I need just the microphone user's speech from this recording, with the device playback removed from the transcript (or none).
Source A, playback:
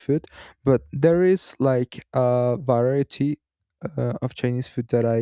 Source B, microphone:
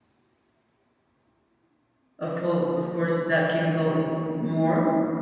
of course, of course, that chemical it's more,